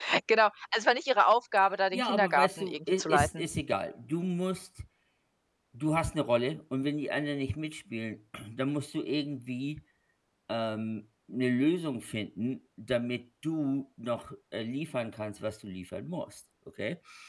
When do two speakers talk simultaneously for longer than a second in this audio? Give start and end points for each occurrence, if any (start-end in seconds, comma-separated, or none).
1.9-3.4